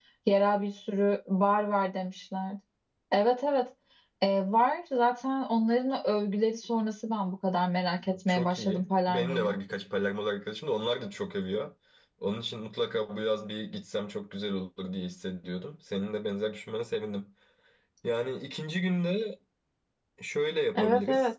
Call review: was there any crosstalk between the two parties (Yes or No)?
Yes